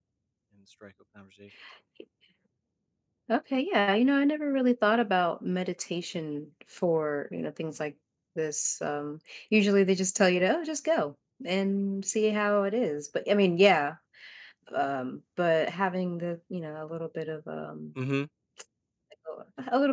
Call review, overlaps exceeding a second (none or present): none